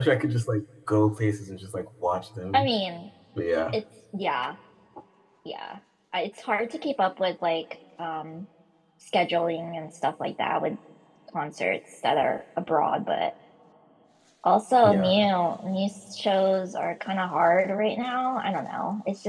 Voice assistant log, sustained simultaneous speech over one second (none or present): none